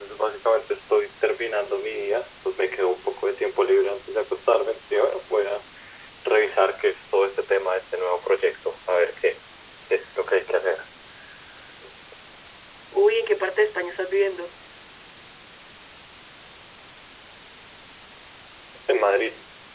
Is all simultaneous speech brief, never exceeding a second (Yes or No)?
Yes